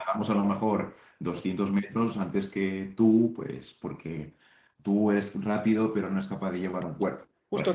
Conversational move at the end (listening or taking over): taking over